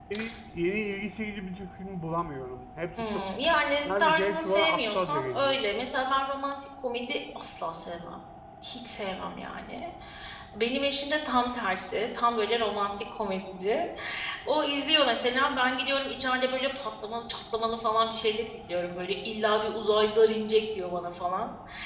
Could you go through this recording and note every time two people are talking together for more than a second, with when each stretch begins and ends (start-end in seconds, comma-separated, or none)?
3.8-5.6